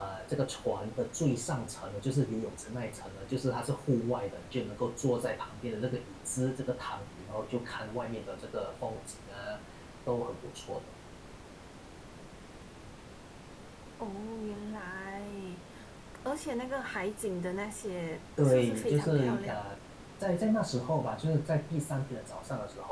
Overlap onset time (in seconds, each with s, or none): 18.4 s